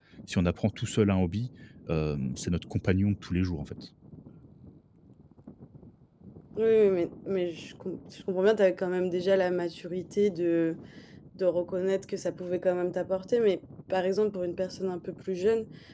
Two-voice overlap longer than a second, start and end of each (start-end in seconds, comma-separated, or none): none